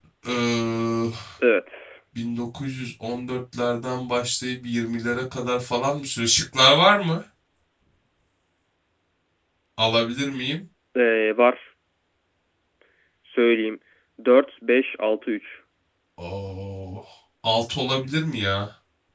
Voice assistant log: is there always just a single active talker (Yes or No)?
Yes